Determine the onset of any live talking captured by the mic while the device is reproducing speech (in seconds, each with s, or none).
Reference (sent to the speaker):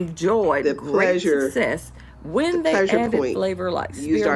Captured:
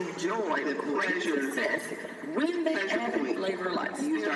none